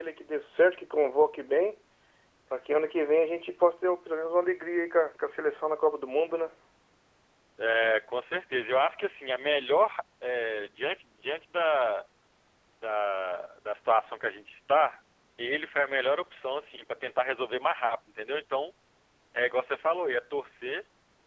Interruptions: none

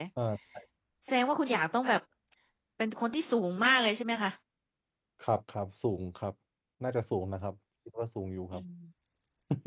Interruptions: none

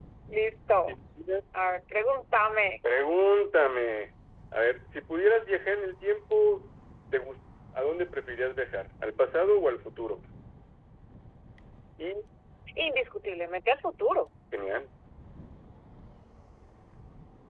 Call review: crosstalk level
none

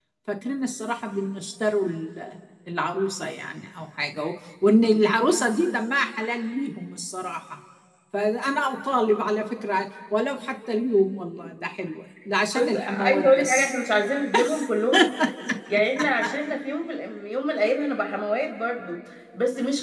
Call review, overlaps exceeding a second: present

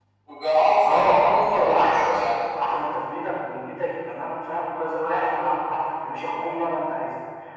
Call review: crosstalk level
present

